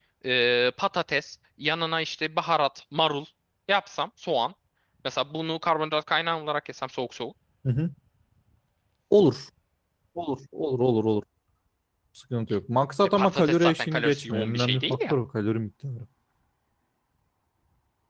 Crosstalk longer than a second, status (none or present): present